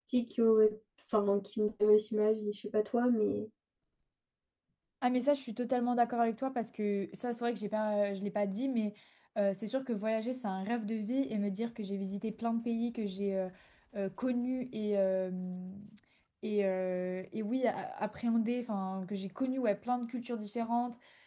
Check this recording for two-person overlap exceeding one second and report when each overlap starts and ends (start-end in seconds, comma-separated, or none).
none